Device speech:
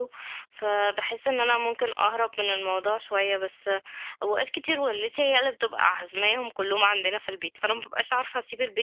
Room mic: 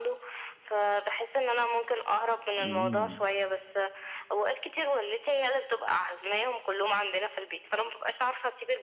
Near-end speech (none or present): present